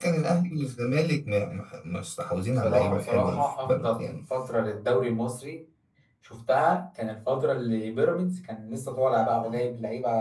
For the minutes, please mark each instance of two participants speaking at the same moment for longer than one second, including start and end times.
2.6-4.2

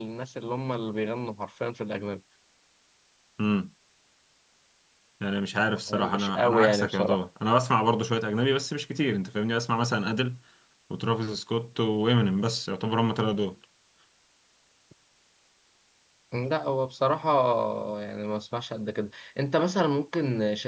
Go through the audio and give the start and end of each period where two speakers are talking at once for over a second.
5.9-7.2

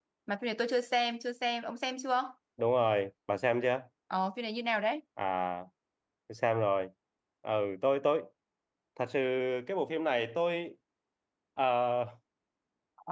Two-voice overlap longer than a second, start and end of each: none

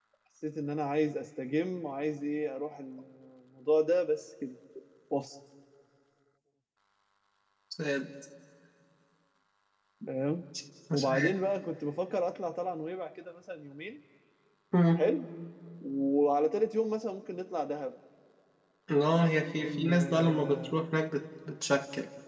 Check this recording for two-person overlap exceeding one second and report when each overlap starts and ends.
19.4-20.8

